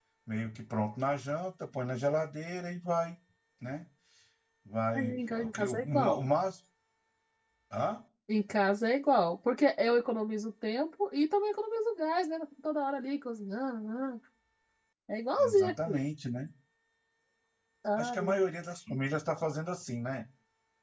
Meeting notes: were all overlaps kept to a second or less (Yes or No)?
No